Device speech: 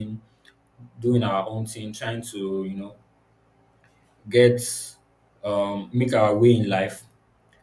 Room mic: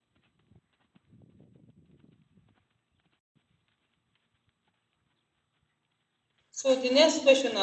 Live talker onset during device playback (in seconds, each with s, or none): 6.5 s